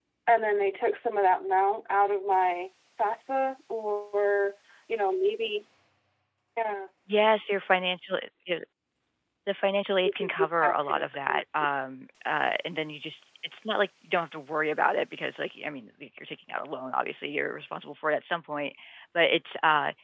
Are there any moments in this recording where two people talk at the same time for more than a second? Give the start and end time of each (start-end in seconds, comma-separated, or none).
10.0-11.4